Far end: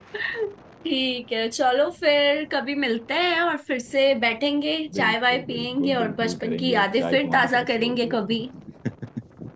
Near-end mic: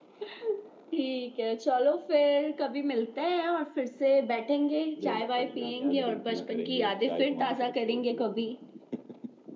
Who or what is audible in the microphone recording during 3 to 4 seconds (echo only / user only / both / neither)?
echo only